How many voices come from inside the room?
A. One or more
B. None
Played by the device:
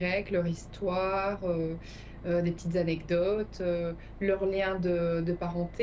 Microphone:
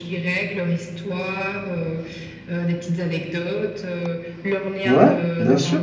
A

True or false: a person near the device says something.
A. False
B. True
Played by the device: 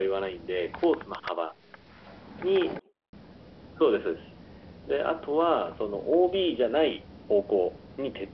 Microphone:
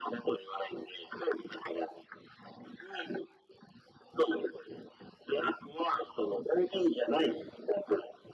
A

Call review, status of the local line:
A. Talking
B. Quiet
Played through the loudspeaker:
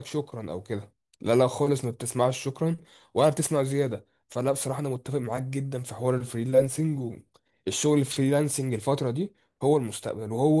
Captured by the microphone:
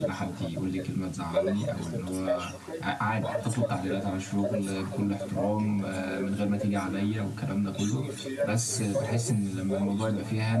A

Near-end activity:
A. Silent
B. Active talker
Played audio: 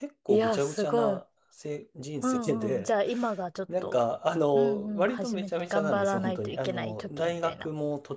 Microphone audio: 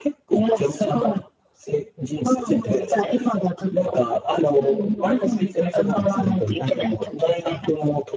A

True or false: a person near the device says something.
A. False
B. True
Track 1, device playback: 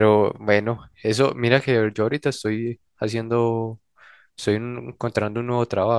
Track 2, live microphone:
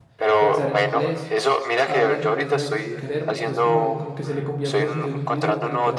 B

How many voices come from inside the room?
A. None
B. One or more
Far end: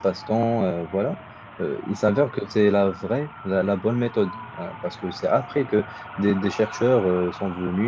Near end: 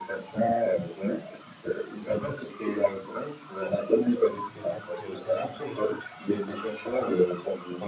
B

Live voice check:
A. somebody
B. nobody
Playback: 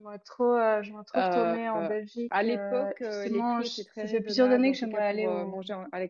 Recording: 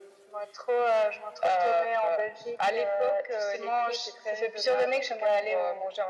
B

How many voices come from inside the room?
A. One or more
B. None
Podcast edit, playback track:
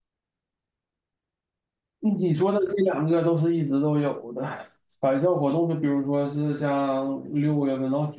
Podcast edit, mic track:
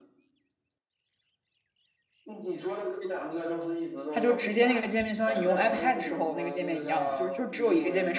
A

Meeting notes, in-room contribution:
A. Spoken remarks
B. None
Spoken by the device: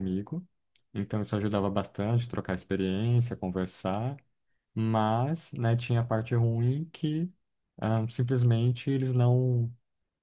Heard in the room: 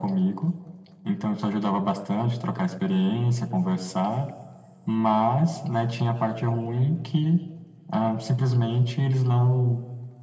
B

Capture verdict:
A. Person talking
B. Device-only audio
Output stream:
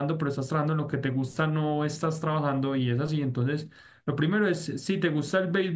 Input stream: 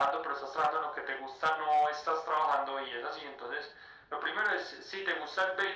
B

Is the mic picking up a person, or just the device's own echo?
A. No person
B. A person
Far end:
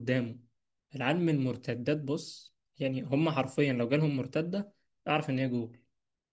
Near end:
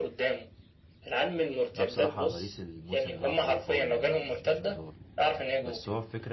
B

